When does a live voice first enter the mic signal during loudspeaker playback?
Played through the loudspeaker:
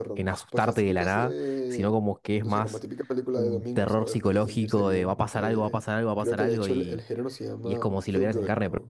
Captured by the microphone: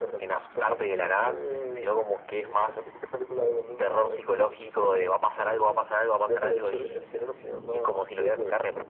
none

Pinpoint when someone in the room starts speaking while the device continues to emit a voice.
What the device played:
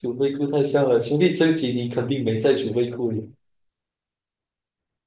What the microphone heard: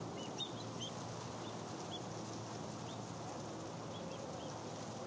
none

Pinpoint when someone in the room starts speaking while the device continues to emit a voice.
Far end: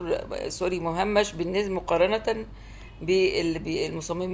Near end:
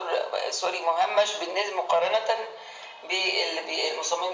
none

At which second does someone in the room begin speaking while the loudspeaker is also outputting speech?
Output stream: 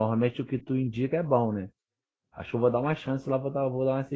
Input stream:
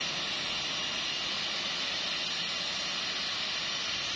none

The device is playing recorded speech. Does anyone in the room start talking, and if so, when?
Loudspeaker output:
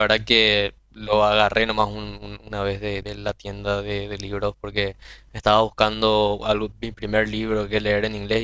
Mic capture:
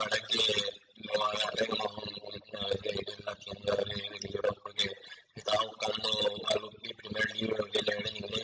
none

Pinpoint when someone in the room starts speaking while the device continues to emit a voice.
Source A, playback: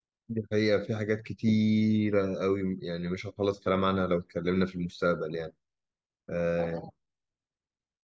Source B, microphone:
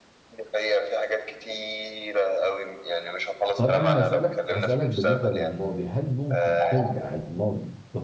4 s

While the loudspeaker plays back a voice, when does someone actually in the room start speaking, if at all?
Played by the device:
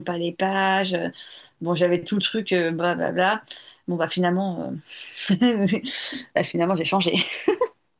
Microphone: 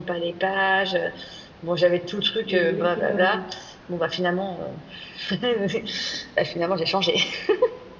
2 s

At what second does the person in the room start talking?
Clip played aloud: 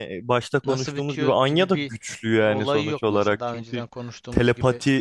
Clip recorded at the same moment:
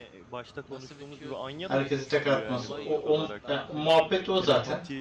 2 s

